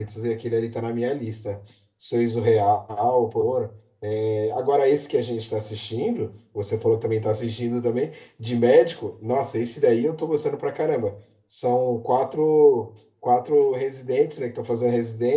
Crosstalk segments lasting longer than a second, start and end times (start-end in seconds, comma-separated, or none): none